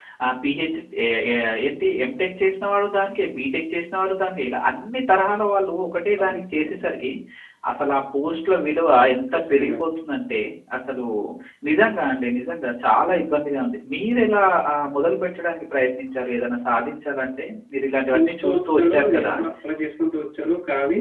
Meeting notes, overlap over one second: present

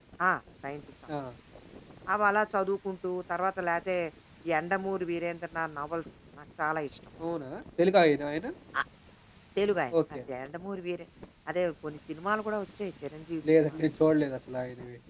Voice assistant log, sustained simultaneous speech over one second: none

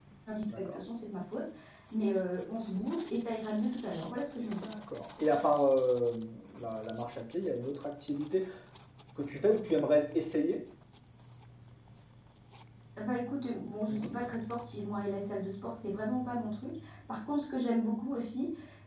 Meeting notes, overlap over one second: none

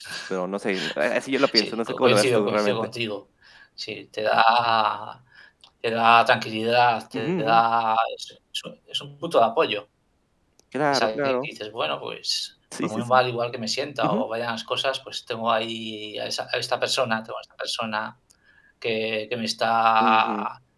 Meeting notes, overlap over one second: present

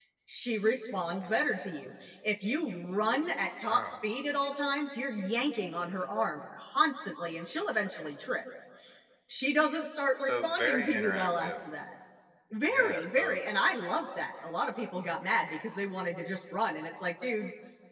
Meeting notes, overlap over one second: present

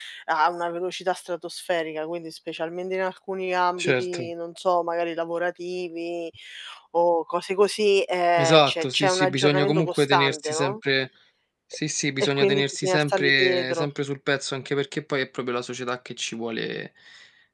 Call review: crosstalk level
present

